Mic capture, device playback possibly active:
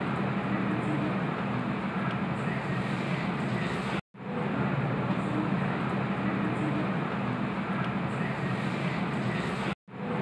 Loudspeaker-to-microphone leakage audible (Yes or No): No